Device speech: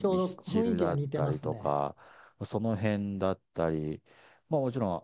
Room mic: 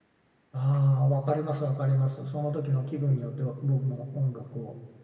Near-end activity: present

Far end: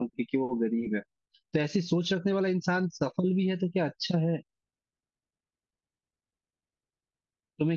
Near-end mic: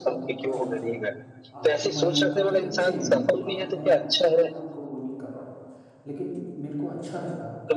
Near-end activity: present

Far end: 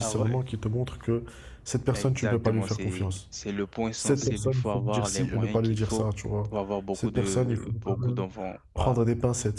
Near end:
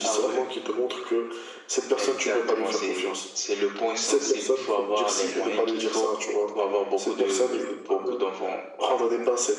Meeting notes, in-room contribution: none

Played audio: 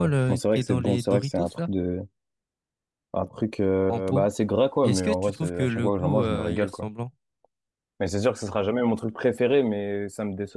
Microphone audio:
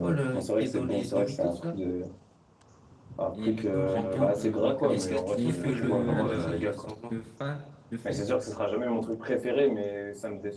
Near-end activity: present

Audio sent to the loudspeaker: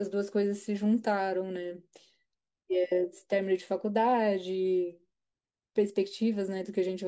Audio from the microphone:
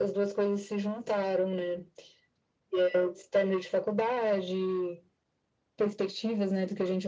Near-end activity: none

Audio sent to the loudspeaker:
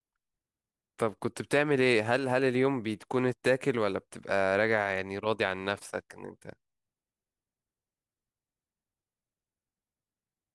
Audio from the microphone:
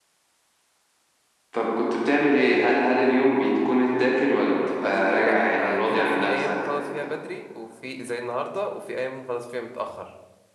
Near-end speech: present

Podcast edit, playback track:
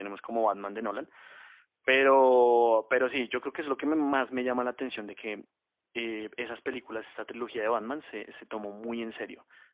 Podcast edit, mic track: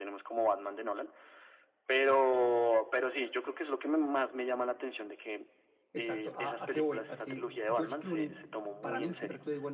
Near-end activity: present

